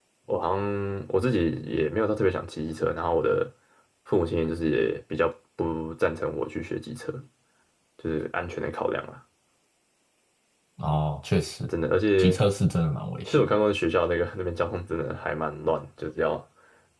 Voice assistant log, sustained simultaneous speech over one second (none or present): none